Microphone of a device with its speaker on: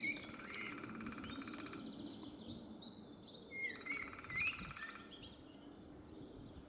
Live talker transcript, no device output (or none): none